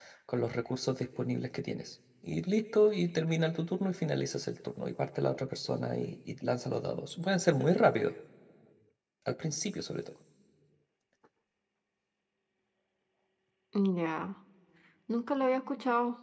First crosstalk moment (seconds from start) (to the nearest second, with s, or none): none